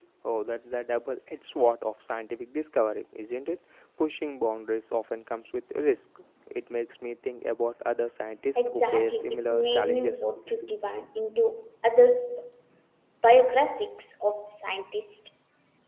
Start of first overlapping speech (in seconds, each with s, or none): 8.6 s